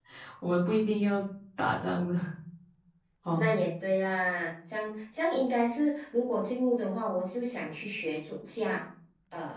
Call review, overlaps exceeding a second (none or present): none